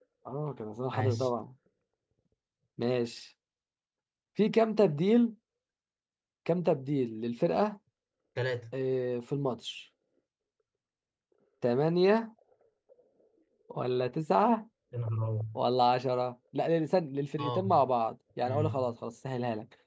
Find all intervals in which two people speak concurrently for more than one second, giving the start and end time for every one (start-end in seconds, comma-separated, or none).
none